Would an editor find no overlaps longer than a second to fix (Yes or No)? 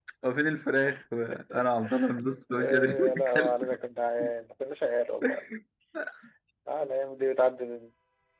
No